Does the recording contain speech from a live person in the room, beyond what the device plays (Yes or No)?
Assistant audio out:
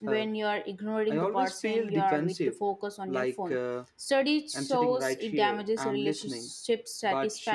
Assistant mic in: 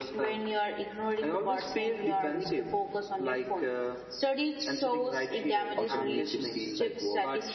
Yes